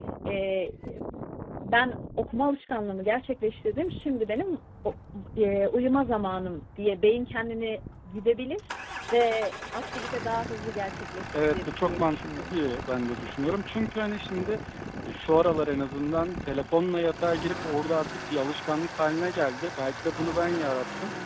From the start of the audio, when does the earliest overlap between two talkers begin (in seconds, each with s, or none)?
11.3 s